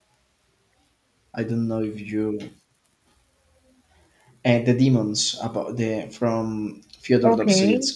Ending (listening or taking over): taking over